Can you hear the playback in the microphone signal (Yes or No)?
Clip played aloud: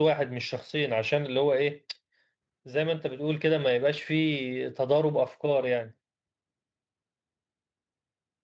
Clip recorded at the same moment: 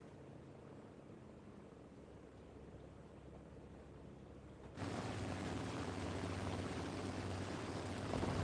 No